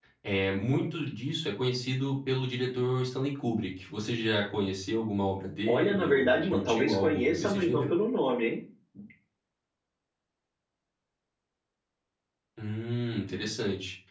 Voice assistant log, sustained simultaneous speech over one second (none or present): present